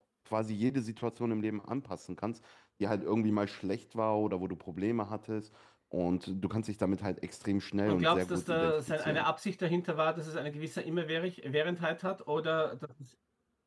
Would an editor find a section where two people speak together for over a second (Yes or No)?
Yes